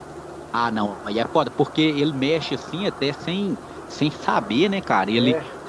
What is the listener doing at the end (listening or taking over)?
listening